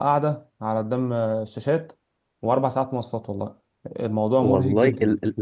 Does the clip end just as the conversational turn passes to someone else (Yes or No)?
Yes